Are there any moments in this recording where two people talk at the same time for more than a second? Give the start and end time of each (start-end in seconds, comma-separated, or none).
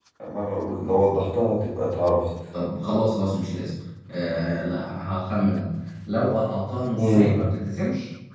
none